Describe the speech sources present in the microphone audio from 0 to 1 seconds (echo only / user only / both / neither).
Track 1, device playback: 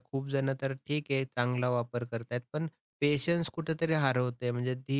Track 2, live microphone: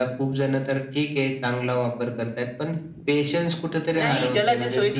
echo only